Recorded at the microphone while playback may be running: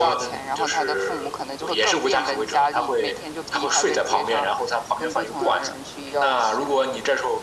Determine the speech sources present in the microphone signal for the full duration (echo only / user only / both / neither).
echo only